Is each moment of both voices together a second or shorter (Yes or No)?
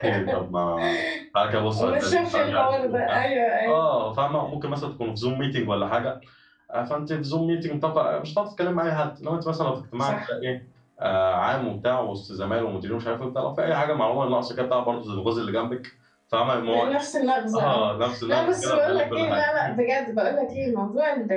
No